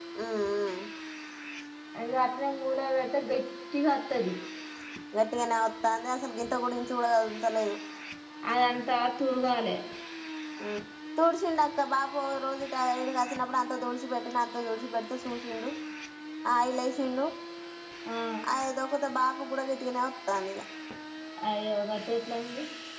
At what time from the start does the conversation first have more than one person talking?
none

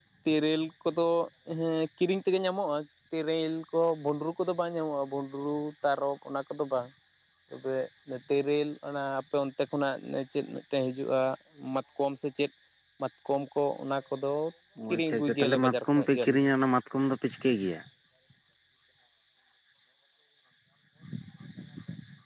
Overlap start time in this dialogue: 14.9 s

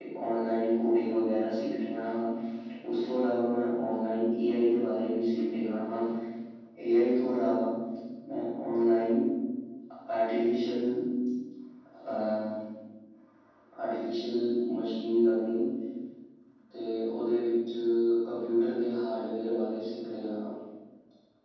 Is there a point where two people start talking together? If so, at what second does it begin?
none

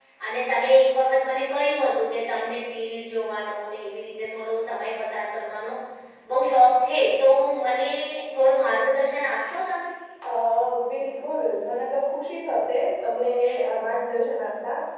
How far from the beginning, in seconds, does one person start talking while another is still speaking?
none

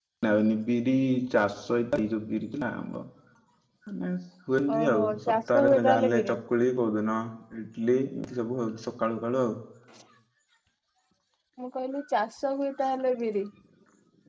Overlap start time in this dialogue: 4.8 s

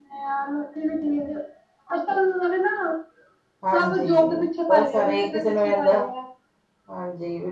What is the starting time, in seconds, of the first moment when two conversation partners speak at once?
3.7 s

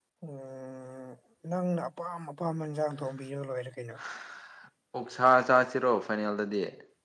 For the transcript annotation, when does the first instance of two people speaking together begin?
none

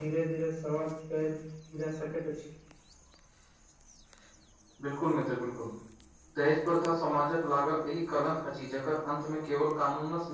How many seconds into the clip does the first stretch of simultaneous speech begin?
none

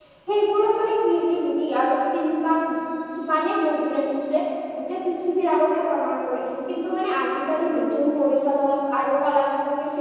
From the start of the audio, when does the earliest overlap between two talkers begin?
none

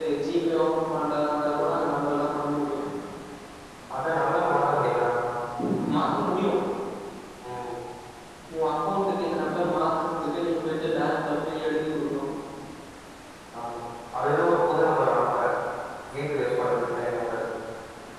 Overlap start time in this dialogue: none

